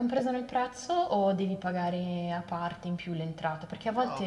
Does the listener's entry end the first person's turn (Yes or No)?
Yes